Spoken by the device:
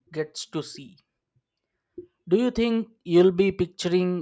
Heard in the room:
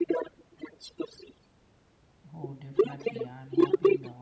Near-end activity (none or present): present